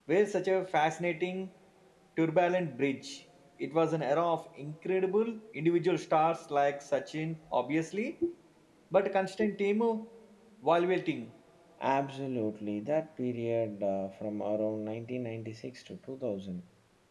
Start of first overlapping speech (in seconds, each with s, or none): none